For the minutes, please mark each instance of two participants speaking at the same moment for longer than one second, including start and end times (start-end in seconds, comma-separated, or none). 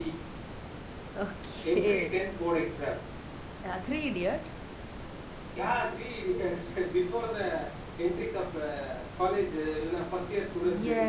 none